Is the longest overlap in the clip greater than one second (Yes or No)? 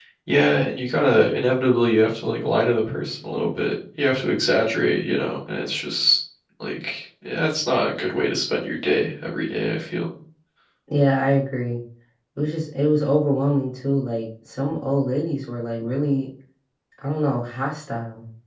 No